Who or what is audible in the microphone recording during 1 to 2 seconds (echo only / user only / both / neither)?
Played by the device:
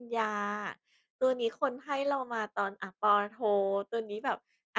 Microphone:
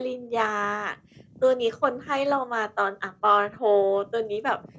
echo only